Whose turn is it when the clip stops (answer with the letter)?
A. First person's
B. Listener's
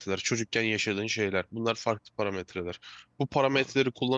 A